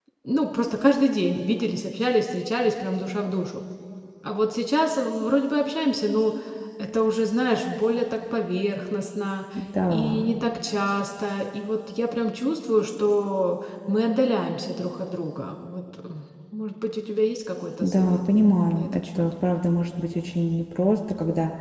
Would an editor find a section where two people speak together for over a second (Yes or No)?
Yes